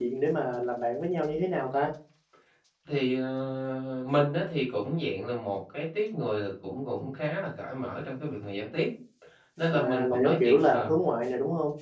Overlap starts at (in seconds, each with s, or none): 9.7 s